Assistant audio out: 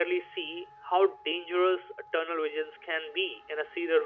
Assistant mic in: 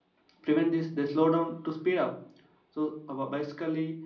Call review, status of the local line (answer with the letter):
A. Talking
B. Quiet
A